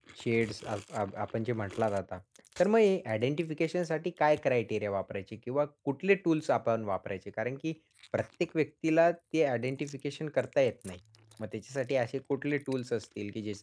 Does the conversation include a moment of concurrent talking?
No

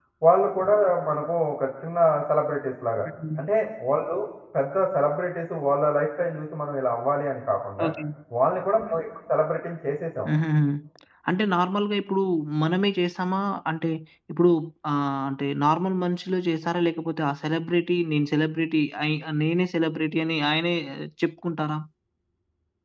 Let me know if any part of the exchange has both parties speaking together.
No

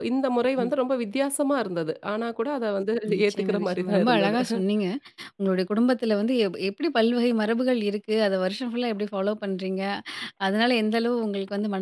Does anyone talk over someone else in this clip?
Yes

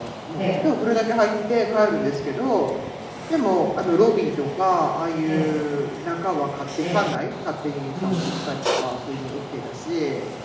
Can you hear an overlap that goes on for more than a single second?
No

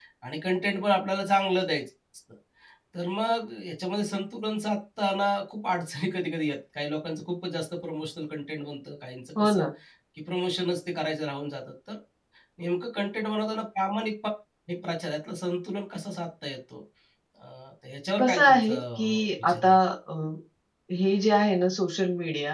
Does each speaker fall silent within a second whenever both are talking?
No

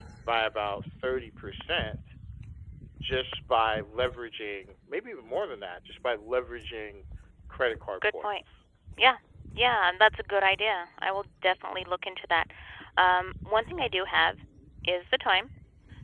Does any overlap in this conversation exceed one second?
No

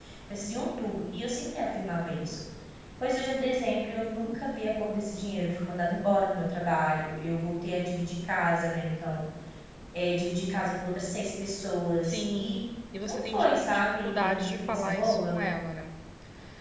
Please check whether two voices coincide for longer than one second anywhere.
Yes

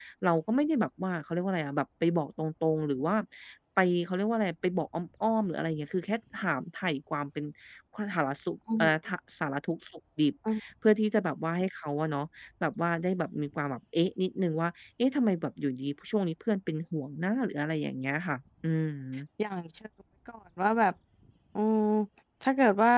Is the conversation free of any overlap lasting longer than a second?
Yes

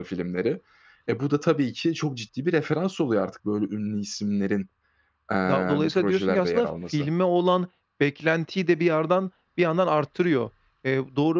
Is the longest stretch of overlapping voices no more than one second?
No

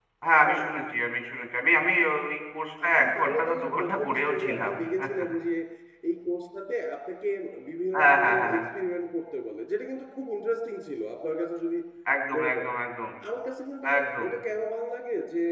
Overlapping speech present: Yes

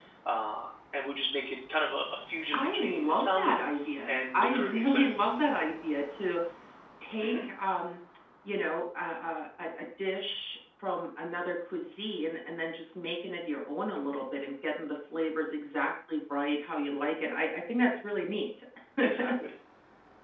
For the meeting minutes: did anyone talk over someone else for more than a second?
Yes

